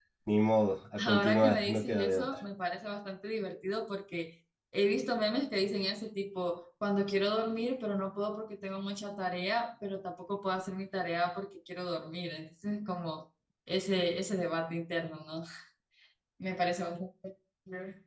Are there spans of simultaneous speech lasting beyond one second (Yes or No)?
Yes